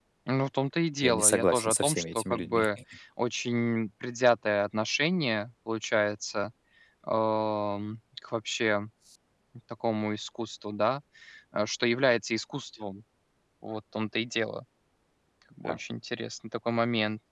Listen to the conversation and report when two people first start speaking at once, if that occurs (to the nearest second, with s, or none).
1 s